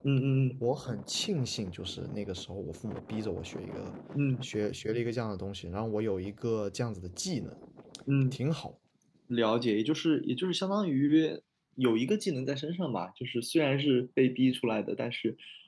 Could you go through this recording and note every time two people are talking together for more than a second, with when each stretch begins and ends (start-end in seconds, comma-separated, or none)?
none